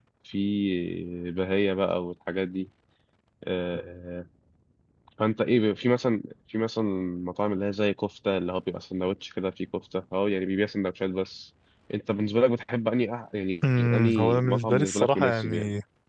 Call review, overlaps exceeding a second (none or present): present